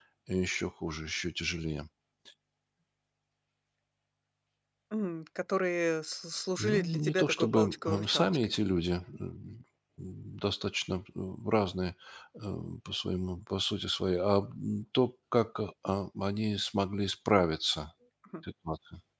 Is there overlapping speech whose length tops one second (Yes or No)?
Yes